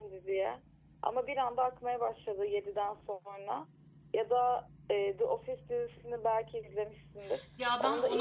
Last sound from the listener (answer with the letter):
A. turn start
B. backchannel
A